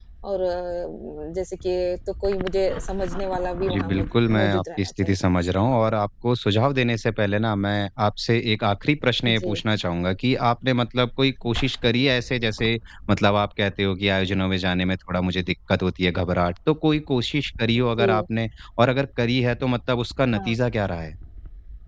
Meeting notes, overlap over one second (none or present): present